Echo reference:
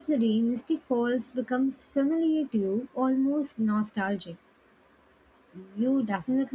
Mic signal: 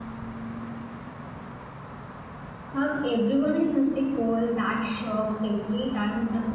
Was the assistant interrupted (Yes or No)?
Yes